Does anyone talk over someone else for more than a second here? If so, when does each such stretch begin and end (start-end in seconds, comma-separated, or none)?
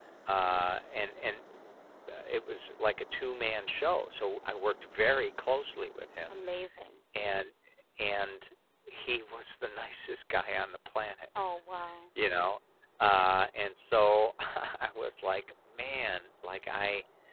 none